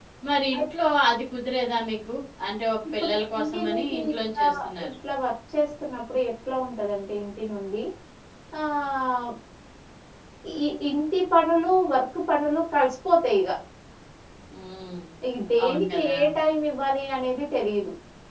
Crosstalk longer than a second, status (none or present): present